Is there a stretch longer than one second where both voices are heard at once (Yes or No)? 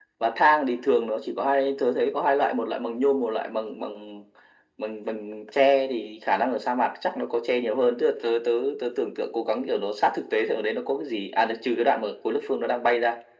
No